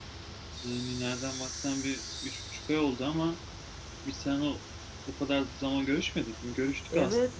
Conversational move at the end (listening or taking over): taking over